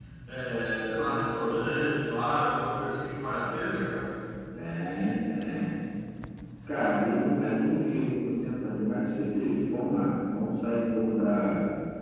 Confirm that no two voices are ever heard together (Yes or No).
Yes